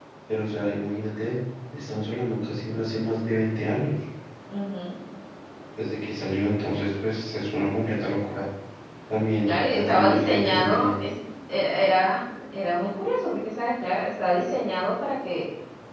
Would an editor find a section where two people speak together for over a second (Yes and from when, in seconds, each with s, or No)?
Yes, from 9.5 s